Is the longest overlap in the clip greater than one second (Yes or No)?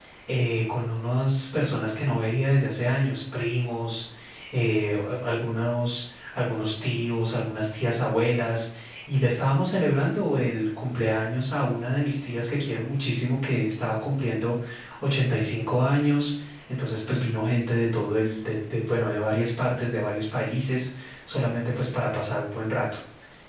No